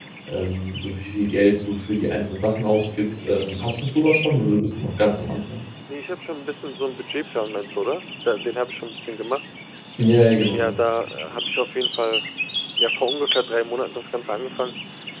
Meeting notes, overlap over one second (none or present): none